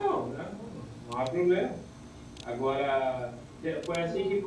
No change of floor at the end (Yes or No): Yes